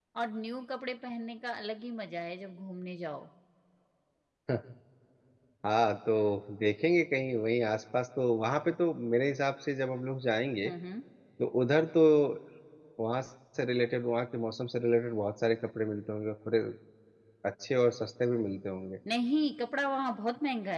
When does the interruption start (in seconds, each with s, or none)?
none